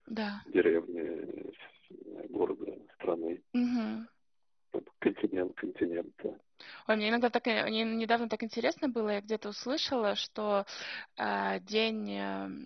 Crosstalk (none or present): none